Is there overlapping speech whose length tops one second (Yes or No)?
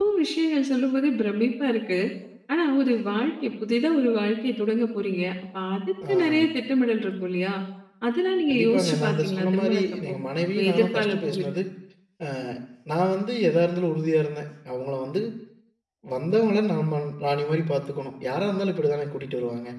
Yes